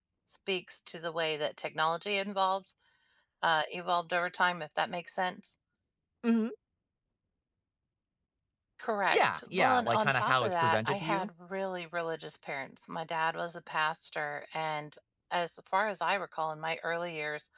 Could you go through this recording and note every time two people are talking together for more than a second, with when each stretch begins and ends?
9.1-11.3

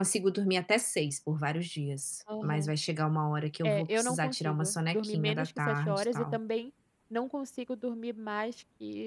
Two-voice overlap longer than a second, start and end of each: 3.6-6.4

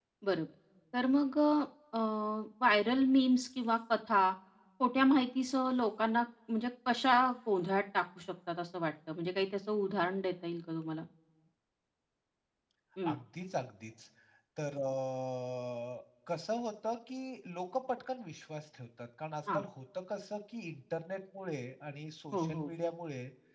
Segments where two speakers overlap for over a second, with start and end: none

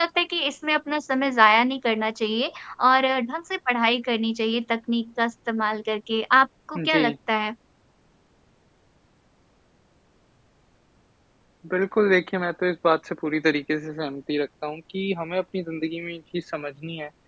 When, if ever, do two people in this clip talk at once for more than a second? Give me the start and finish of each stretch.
none

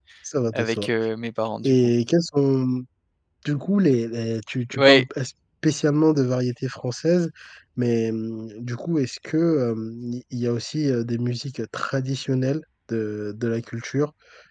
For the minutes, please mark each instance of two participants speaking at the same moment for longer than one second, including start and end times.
none

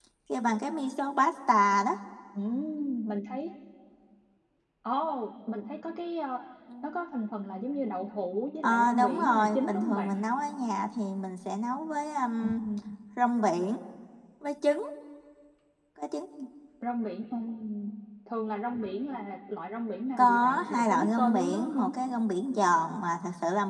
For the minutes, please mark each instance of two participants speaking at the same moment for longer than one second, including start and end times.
8.6-10.2, 20.2-21.9

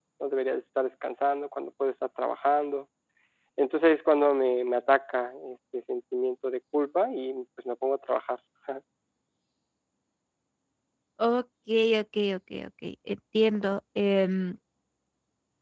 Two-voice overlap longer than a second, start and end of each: none

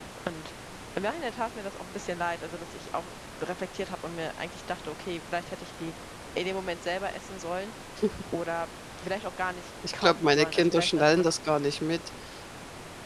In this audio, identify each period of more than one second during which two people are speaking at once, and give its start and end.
10.0-11.3

